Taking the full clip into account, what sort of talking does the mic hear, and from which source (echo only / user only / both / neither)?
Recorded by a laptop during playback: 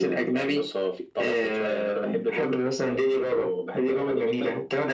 echo only